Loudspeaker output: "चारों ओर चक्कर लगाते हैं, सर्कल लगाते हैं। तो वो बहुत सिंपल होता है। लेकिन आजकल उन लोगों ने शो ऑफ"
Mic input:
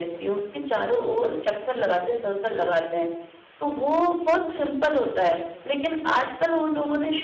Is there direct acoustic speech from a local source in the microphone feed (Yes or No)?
No